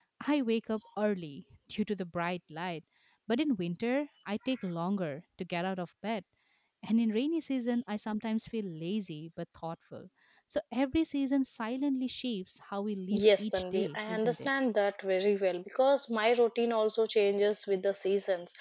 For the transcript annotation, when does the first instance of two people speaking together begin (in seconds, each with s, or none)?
13.1 s